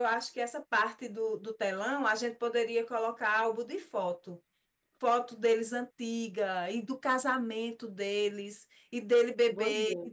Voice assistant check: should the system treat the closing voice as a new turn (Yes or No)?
No